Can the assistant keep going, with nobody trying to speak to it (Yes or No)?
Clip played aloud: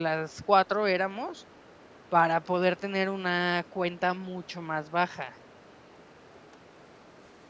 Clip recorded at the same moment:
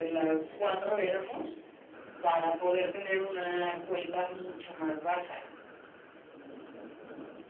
Yes